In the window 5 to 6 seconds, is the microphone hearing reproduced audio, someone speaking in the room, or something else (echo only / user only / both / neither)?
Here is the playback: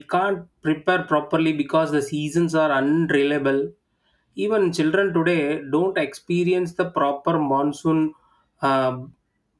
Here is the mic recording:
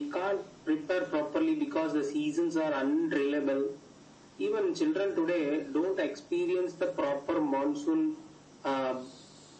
echo only